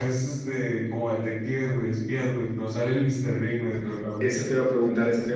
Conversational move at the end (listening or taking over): taking over